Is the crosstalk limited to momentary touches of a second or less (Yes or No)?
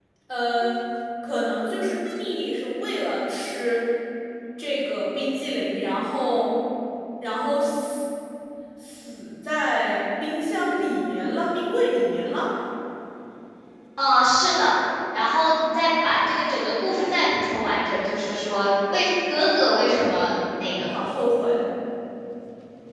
Yes